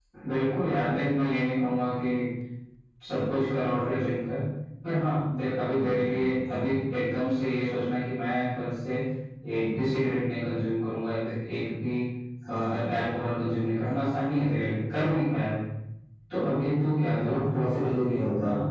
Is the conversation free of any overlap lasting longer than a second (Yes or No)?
No